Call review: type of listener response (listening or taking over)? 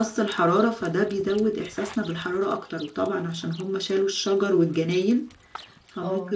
listening